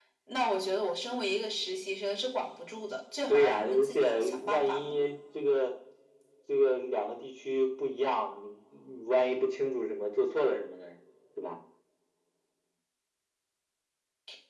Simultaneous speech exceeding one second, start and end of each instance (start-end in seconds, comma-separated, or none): 3.3-4.9